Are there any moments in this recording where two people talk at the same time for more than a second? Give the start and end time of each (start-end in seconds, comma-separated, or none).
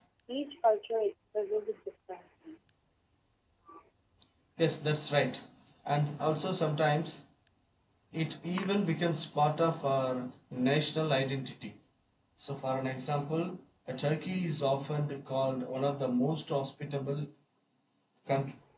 none